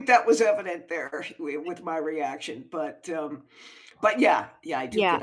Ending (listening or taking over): taking over